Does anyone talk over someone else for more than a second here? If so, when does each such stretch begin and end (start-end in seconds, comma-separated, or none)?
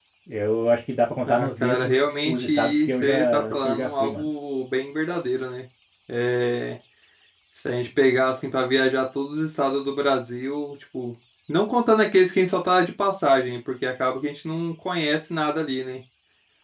1.3-4.3